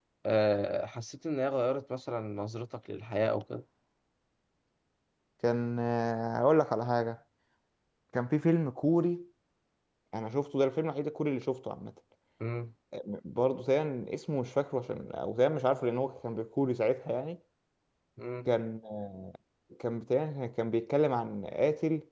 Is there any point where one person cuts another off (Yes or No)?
No